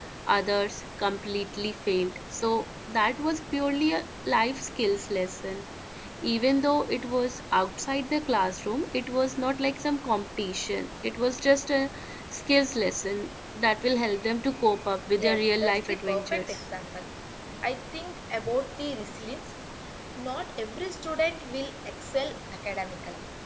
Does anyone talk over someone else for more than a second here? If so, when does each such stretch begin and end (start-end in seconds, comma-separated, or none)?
15.2-16.5